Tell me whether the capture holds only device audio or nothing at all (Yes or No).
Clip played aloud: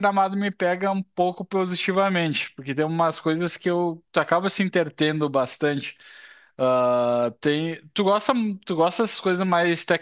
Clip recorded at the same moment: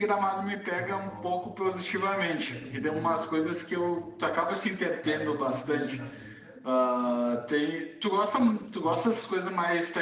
No